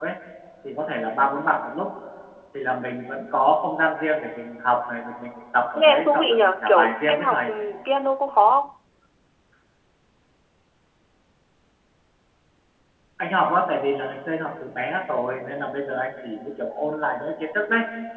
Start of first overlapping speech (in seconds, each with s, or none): 5.8 s